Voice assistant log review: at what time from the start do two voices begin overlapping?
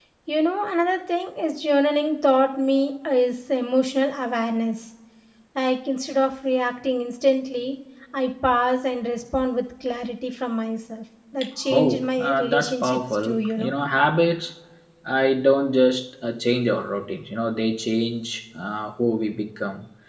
11.7 s

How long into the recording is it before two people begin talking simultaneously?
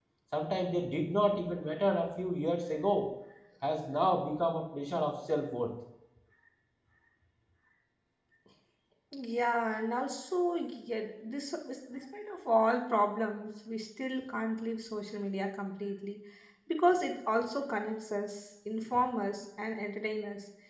none

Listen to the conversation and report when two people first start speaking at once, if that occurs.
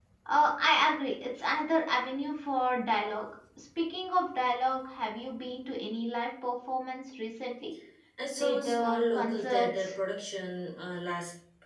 8.4 s

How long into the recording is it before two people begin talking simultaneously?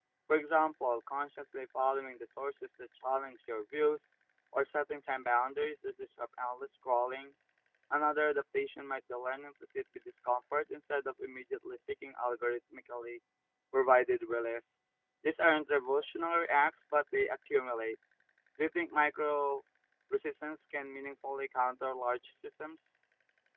none

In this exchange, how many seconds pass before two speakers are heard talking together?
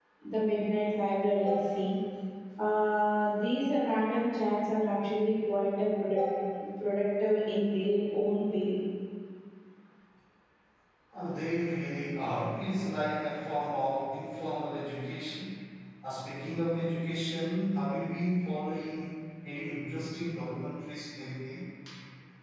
none

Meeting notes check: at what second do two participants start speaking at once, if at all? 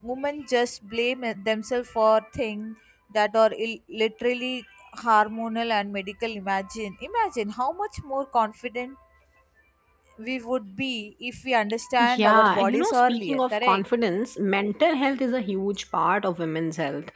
12.0 s

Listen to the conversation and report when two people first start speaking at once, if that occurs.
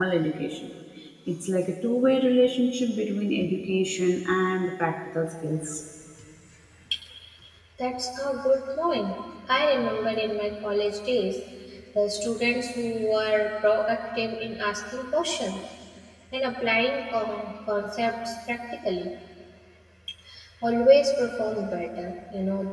none

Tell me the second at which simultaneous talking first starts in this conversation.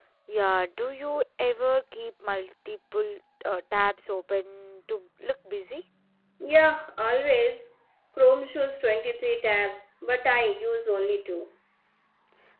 none

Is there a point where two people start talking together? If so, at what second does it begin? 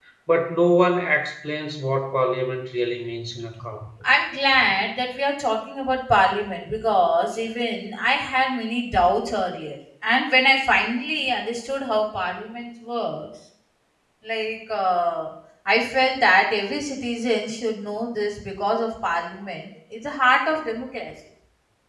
none

